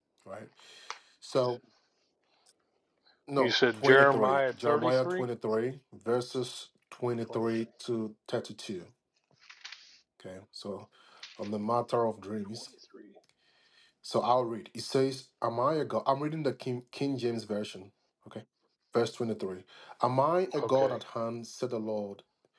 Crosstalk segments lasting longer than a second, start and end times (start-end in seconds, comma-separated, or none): 3.4-5.2